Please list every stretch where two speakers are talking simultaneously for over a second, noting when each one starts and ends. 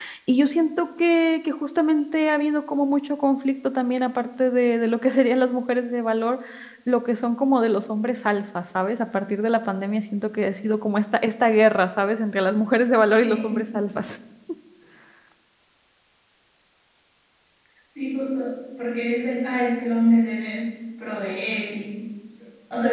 none

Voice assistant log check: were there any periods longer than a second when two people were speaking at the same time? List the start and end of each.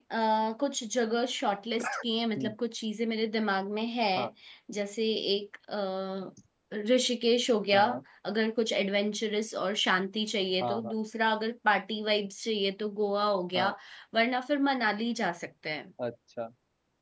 none

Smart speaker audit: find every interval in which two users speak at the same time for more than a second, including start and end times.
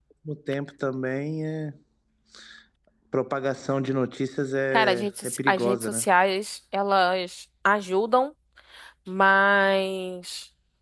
4.7-6.0

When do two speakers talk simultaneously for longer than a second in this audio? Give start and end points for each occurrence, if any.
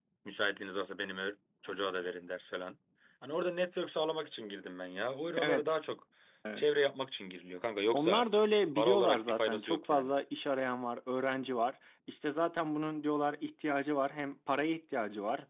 8.8-10.1

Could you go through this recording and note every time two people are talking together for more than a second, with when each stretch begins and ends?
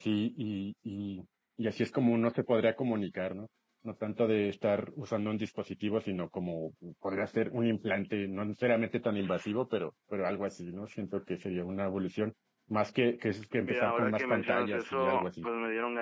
13.6-15.5

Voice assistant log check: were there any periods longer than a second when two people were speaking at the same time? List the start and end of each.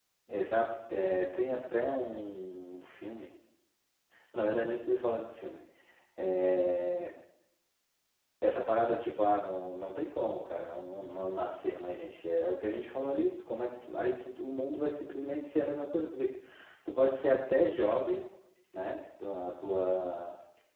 none

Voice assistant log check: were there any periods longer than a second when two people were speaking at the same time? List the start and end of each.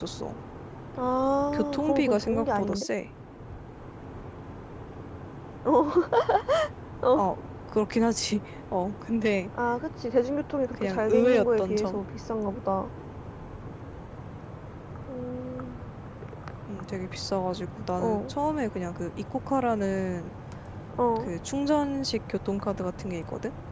1.5-2.9, 10.7-12.0

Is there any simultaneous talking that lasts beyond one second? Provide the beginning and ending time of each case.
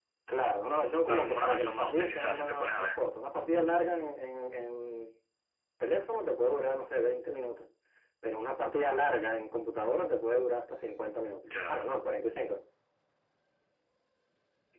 1.1-2.9

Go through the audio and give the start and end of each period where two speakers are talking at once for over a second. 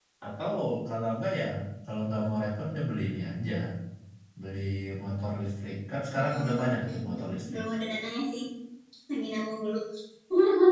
6.1-7.6

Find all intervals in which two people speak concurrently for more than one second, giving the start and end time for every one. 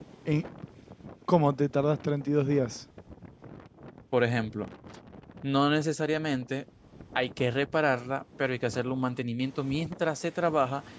none

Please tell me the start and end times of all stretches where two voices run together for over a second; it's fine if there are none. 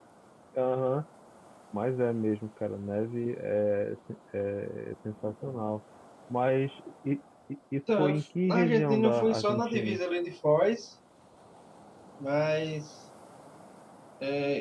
8.0-10.0

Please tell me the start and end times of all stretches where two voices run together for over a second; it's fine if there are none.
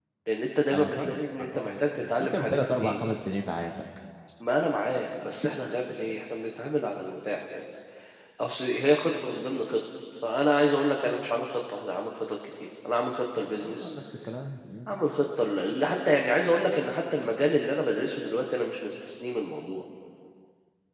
0.7-3.0

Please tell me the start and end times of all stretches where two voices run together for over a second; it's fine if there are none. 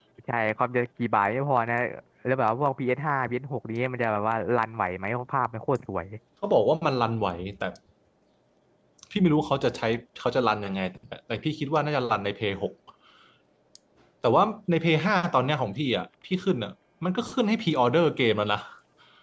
none

